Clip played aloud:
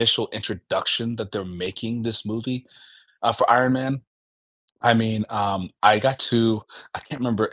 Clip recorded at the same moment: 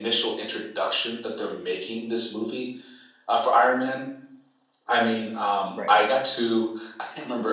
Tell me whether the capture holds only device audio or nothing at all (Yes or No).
No